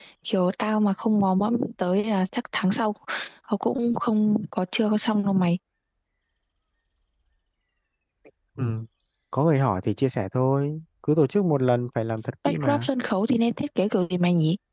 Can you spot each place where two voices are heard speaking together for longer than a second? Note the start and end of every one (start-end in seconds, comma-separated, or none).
none